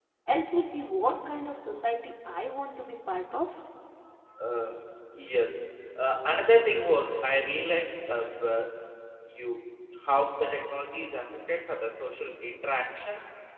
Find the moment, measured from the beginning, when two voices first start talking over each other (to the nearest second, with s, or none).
none